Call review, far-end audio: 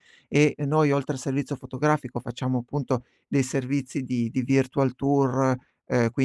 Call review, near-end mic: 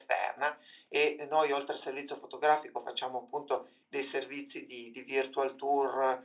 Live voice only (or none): none